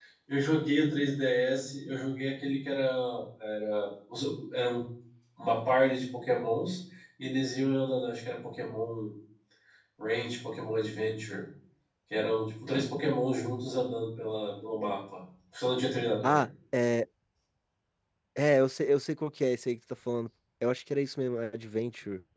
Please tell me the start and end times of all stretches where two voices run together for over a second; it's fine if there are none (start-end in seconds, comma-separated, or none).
none